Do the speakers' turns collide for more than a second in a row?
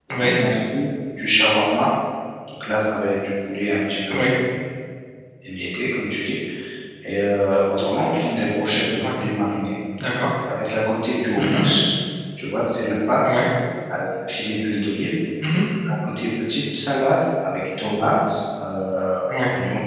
No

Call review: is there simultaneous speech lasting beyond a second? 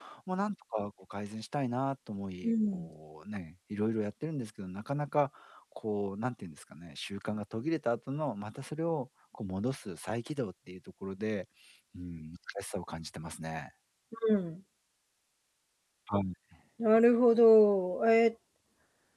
No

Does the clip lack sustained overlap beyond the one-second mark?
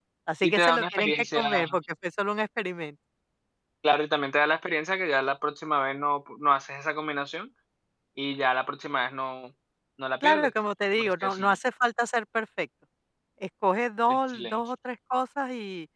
No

